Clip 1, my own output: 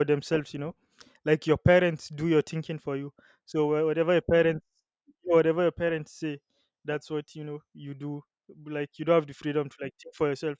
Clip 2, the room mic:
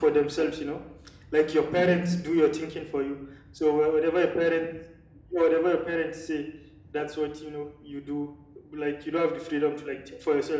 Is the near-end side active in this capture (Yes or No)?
Yes